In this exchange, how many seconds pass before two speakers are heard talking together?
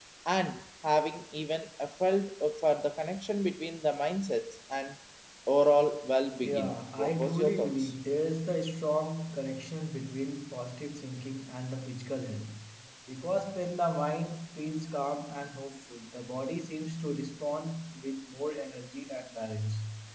6 s

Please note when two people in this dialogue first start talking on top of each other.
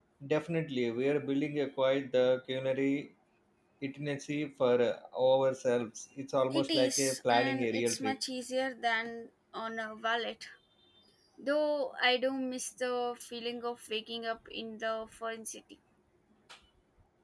7 s

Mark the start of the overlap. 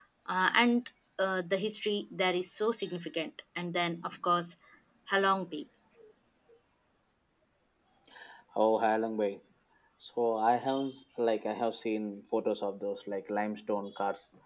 none

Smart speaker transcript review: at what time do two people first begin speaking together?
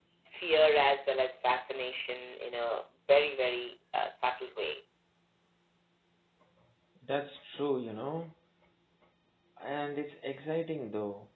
none

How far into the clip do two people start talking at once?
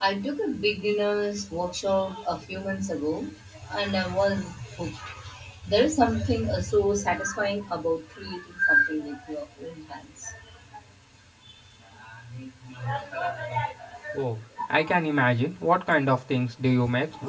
none

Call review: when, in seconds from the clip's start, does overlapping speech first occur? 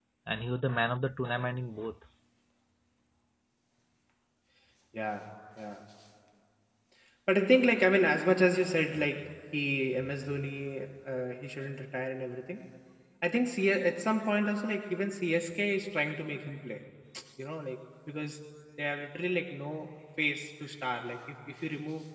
none

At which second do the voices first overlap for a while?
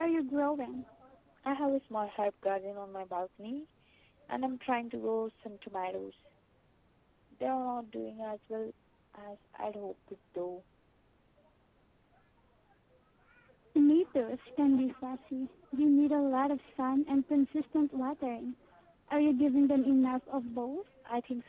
none

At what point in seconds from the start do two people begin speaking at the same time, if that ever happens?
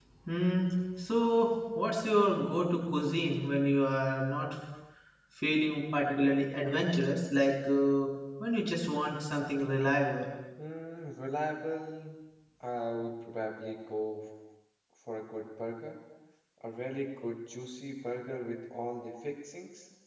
none

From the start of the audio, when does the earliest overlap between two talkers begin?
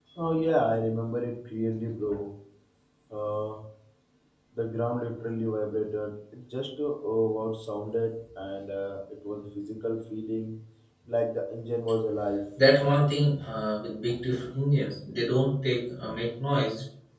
none

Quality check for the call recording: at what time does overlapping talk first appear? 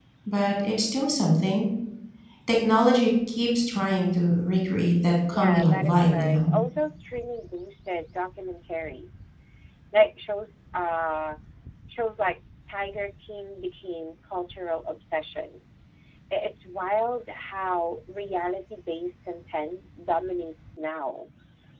5 s

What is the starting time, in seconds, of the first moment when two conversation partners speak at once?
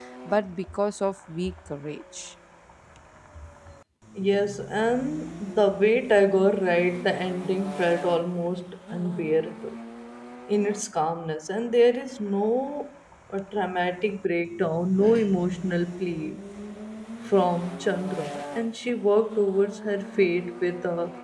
none

